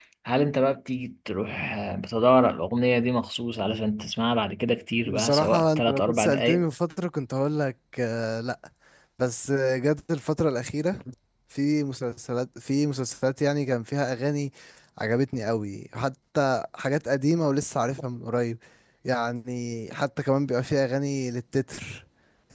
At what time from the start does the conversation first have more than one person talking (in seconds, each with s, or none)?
5.0 s